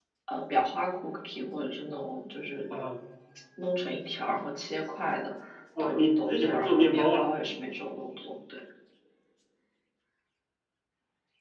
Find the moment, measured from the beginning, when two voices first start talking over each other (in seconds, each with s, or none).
5.8 s